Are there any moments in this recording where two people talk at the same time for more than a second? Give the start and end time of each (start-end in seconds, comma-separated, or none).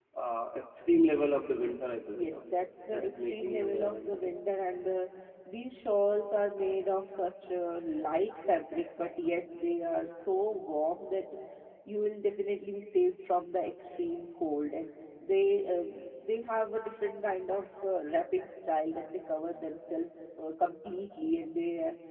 2.9-4.1